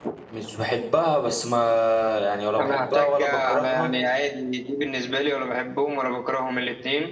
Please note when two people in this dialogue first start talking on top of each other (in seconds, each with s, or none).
2.6 s